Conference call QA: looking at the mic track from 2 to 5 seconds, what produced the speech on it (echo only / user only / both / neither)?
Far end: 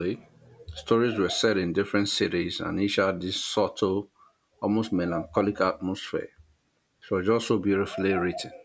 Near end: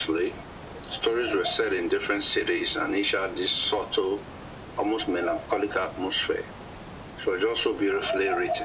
echo only